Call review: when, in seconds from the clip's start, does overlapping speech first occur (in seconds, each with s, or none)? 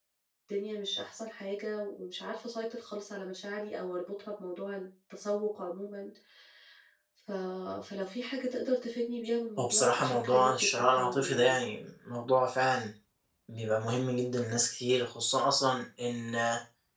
9.6 s